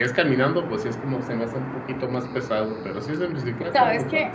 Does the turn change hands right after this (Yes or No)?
Yes